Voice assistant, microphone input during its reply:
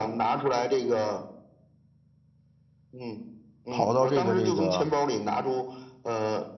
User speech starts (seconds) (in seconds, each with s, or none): 3.7 s